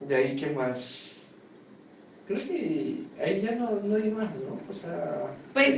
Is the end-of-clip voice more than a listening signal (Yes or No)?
Yes